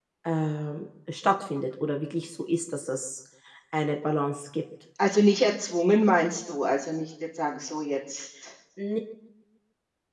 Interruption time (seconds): none

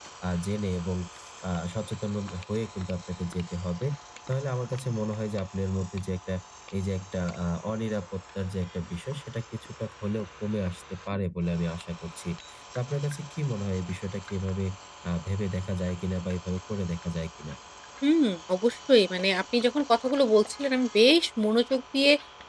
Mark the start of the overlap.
none

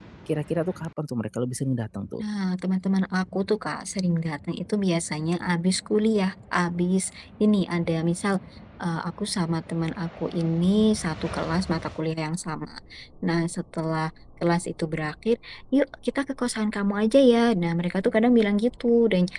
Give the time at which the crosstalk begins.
none

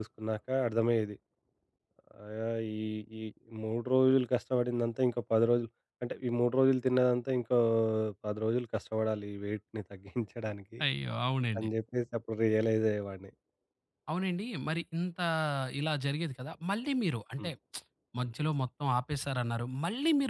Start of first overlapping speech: none

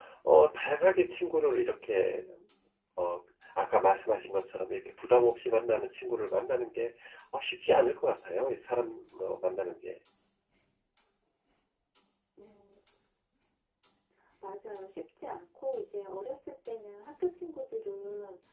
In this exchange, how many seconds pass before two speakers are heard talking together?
none

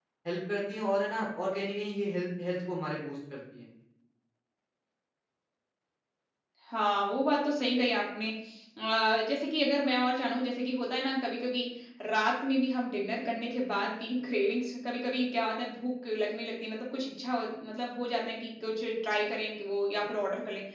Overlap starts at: none

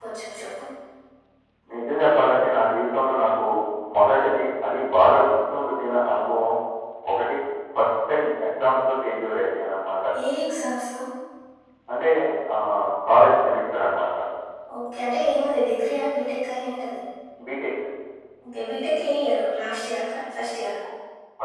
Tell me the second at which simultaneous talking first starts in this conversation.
none

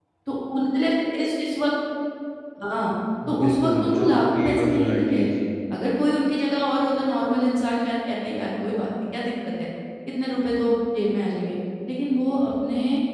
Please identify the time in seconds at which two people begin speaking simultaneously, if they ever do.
3.4 s

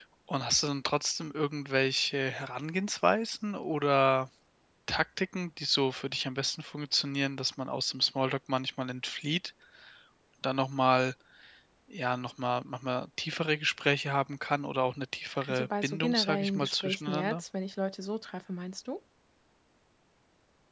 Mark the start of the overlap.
15.4 s

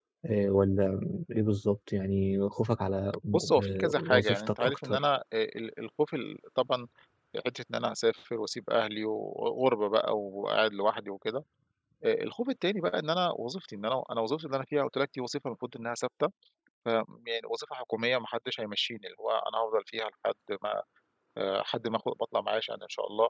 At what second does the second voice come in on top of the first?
3.3 s

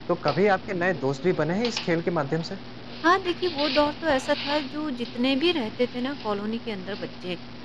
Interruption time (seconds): none

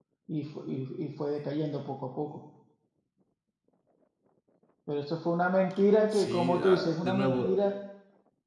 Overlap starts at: 6.1 s

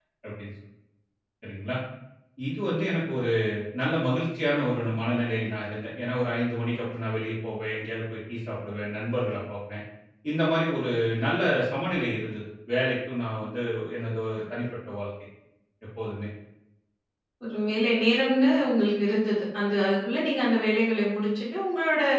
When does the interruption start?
none

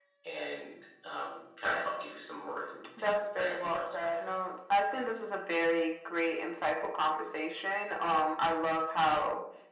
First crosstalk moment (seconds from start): 3.0 s

